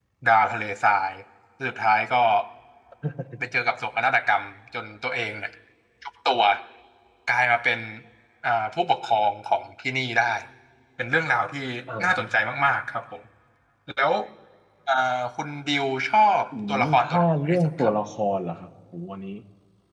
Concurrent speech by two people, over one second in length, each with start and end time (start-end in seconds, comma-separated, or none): 16.7-17.9